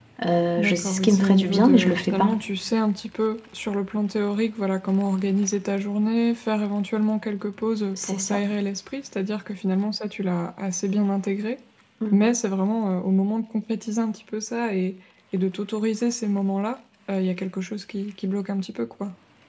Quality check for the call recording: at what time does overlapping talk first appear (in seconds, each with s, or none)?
0.6 s